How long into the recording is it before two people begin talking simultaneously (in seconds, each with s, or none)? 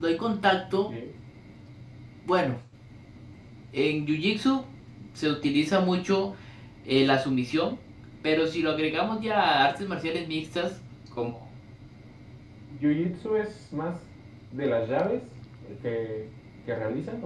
none